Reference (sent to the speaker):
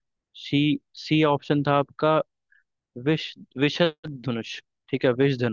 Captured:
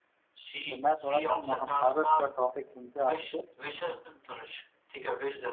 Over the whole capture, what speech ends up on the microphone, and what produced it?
both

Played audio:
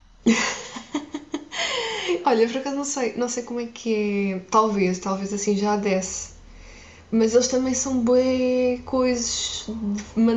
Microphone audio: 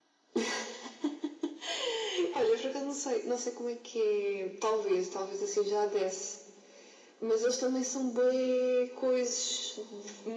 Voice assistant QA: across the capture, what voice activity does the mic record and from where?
echo only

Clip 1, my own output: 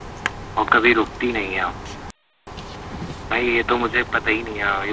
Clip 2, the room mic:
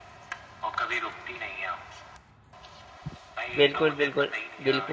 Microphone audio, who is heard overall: both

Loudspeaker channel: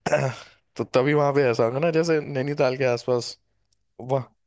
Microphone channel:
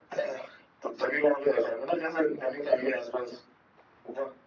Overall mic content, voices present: echo only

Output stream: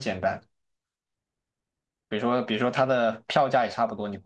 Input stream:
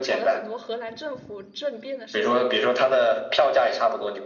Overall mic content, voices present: both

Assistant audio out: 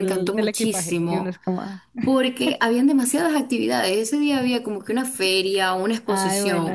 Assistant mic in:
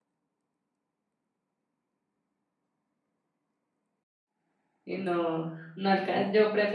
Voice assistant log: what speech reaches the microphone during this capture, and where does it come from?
user only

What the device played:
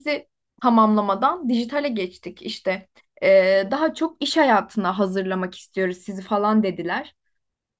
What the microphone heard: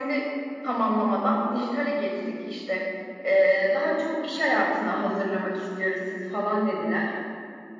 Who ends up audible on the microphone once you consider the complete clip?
echo only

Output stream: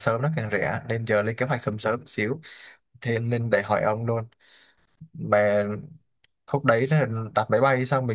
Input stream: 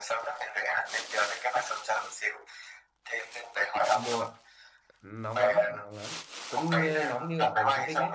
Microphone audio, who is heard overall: both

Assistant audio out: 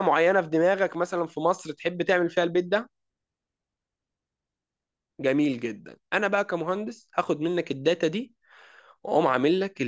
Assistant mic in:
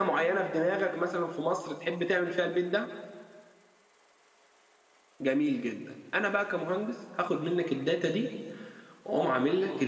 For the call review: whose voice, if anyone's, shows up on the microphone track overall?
echo only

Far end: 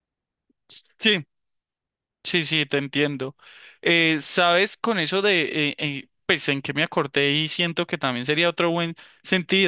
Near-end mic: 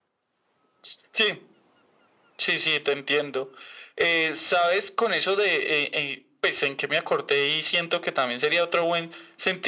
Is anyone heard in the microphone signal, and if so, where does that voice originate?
echo only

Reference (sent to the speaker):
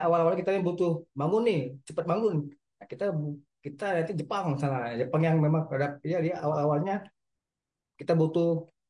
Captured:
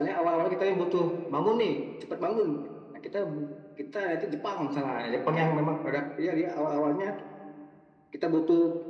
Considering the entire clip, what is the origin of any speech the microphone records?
echo only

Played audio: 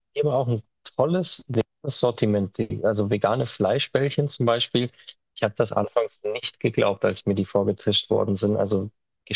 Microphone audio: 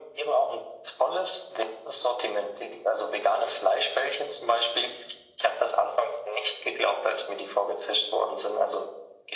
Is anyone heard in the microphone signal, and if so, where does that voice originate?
echo only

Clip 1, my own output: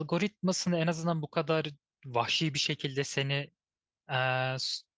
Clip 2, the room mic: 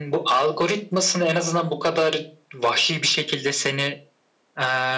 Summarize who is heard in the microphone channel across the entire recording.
echo only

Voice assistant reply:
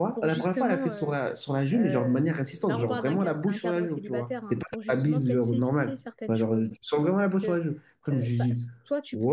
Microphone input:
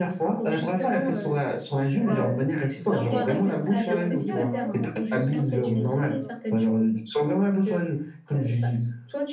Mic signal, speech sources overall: both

